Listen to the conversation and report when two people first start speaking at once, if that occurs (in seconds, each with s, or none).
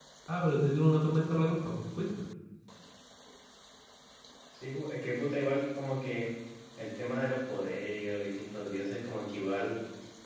none